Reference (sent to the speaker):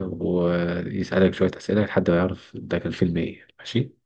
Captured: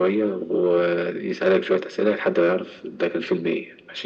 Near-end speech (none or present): none